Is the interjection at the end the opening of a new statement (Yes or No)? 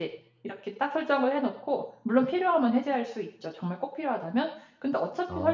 No